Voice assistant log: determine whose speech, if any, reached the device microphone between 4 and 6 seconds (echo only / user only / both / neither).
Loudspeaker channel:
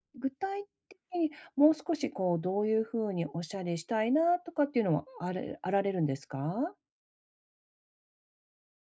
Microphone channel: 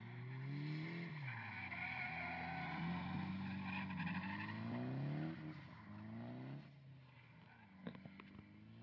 neither